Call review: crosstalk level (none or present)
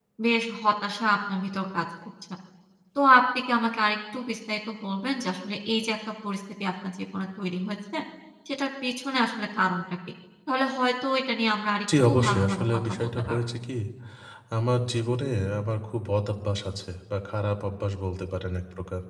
present